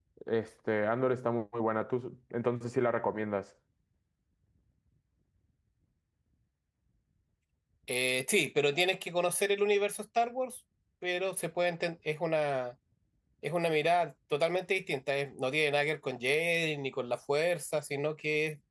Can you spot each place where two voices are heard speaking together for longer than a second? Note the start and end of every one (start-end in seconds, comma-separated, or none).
none